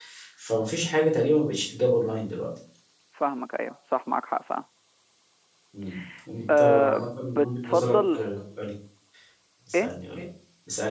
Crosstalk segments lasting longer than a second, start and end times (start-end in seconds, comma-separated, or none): 6.6-8.2